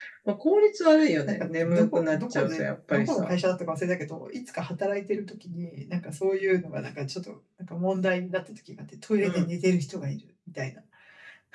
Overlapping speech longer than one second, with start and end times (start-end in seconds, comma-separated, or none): 1.3-3.4